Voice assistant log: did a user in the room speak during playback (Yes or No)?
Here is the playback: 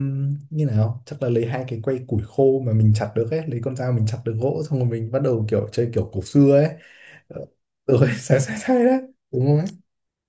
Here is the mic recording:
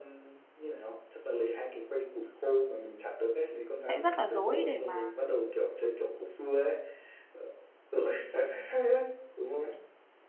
Yes